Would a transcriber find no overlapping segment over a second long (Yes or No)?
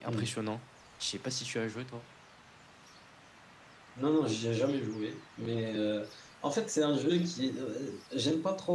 Yes